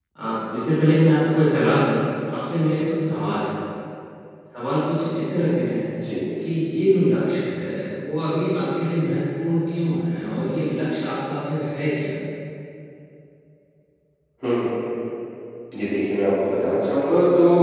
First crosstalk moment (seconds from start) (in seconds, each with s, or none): none